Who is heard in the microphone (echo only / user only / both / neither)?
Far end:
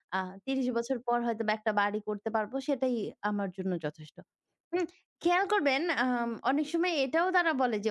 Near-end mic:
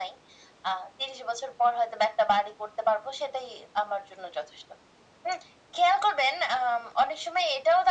echo only